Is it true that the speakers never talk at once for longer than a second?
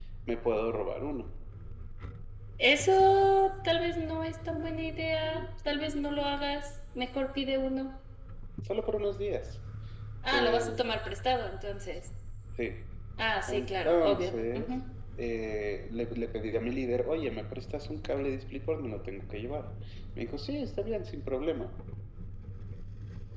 No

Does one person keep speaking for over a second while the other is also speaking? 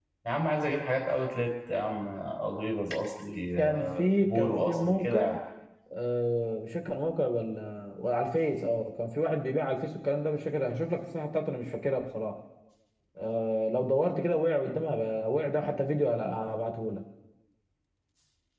Yes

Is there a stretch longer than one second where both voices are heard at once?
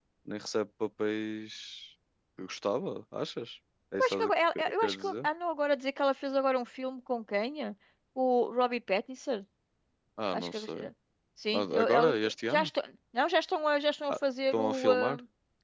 Yes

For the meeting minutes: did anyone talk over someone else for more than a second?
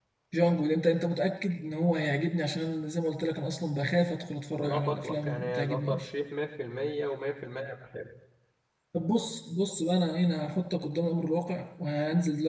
Yes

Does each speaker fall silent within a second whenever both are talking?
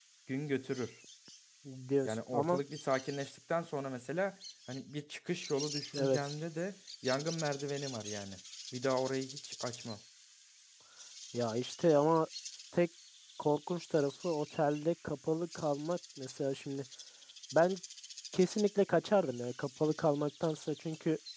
Yes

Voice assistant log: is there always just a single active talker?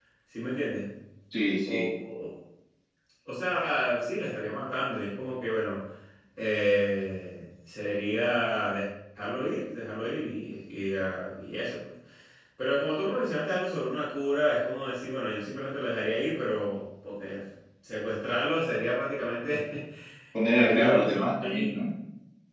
No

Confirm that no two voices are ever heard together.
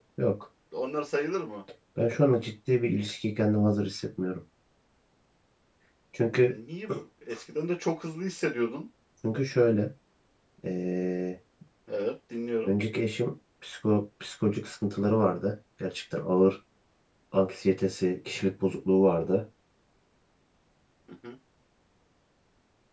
Yes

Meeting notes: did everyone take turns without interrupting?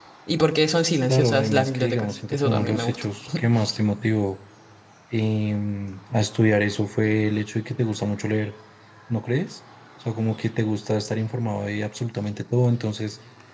No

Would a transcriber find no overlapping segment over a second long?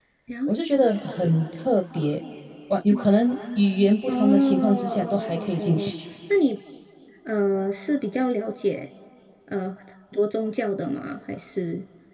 No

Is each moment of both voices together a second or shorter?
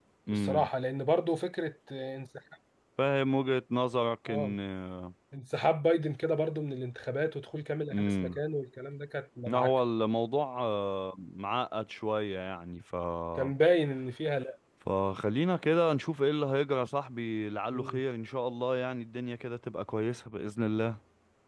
Yes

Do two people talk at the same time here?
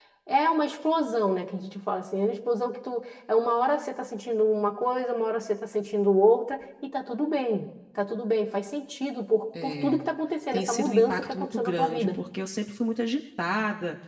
Yes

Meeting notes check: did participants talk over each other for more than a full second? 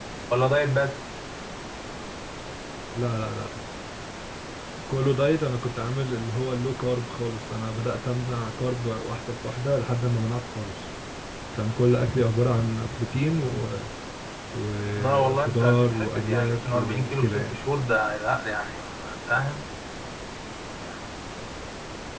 Yes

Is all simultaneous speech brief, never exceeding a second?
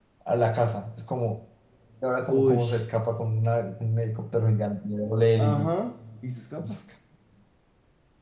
Yes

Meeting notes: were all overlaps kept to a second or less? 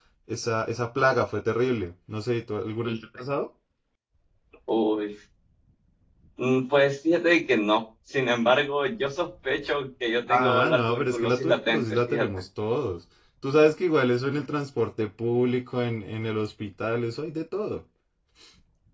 No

